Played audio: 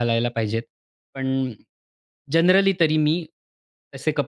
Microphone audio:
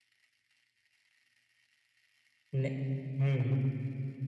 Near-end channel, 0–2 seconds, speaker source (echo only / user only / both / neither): neither